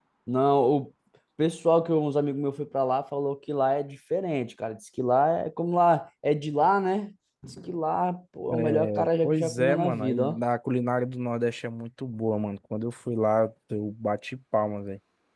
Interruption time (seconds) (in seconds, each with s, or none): 8.5 s